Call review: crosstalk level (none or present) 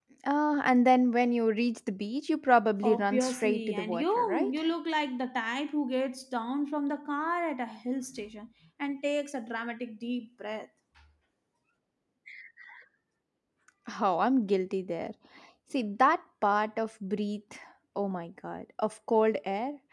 present